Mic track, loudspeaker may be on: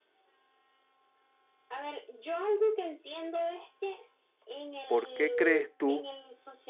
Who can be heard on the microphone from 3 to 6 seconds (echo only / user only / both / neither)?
both